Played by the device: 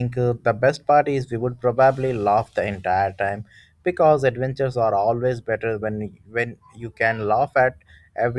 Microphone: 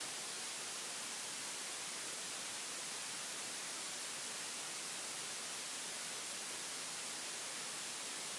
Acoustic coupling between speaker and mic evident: No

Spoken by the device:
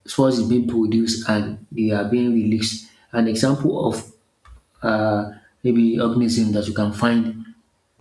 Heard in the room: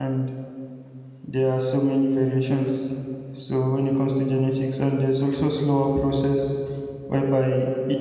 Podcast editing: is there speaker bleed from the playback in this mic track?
No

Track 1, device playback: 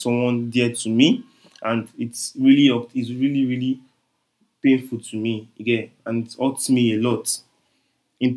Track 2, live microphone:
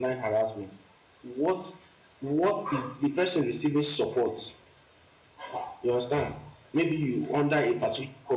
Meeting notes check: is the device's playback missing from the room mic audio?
Yes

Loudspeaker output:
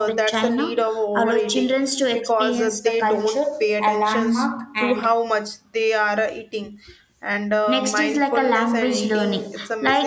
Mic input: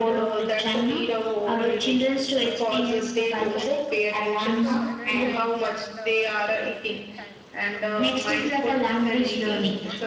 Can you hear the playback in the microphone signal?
Yes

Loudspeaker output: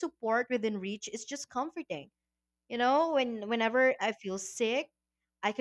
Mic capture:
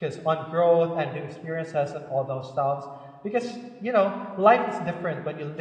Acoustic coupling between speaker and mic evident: No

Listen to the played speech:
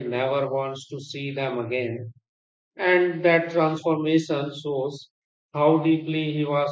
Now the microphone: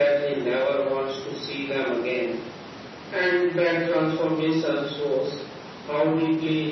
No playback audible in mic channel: No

